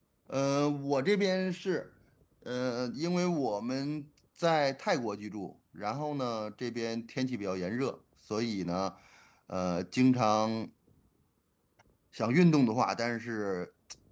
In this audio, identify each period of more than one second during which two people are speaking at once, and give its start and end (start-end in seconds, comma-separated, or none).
none